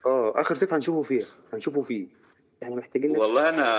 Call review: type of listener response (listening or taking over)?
taking over